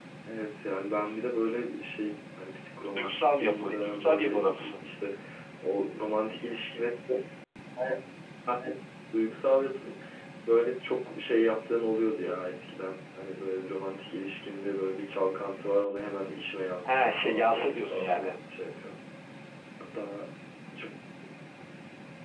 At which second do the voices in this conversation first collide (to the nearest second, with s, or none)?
3 s